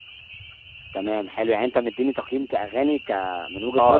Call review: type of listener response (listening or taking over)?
taking over